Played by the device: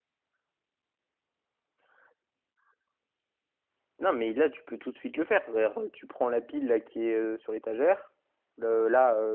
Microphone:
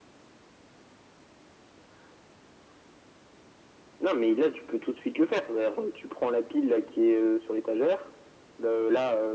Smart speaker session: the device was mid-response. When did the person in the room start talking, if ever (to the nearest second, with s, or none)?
none